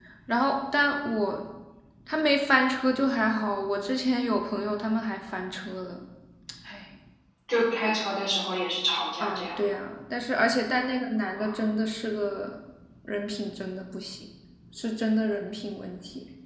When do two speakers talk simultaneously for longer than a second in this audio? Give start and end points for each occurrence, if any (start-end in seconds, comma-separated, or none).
none